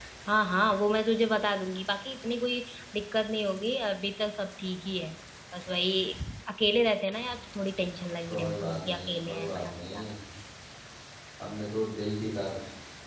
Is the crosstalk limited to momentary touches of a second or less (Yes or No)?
No